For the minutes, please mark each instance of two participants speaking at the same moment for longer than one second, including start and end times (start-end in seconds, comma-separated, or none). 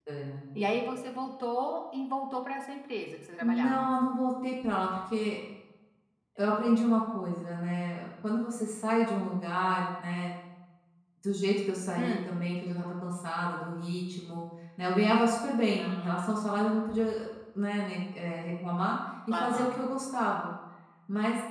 none